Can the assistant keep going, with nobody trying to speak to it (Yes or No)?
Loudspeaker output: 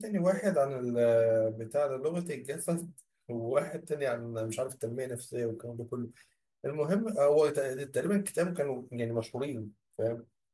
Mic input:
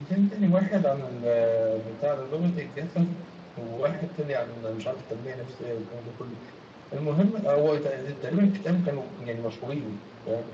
Yes